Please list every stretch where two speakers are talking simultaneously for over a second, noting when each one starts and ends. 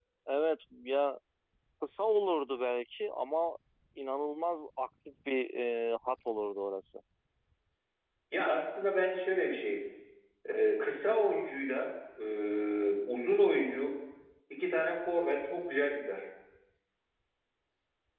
none

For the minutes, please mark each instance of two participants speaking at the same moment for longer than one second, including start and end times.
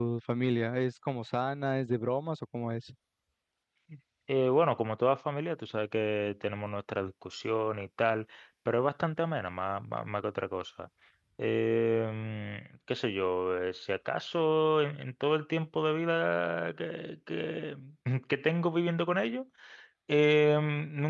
none

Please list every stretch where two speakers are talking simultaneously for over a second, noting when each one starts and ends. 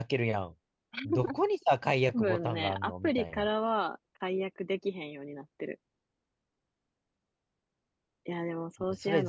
2.1-3.5

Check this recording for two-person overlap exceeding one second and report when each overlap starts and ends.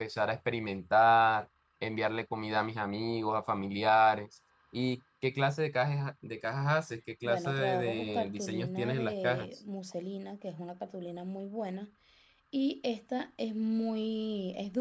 7.2-9.5

